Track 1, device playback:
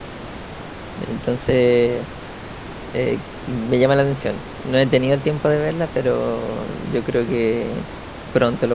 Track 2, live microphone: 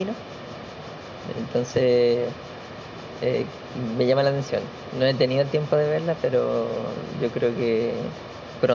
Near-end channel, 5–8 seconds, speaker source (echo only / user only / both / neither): echo only